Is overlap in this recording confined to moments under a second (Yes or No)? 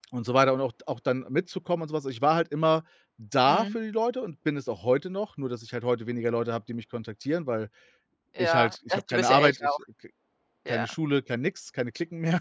No